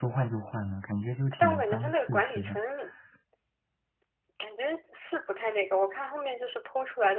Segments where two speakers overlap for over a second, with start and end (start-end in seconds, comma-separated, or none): 1.4-2.6